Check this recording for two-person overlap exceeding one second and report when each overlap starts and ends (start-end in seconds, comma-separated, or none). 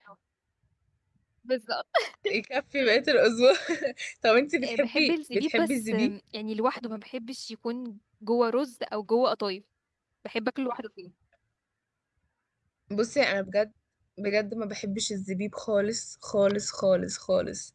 4.6-6.1